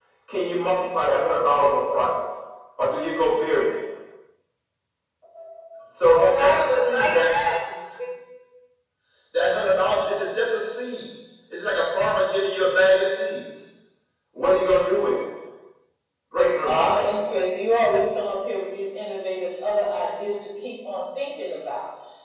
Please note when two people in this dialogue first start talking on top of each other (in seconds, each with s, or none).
6.0 s